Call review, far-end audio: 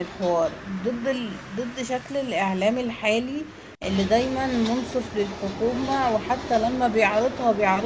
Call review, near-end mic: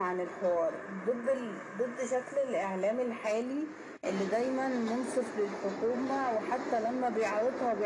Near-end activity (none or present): none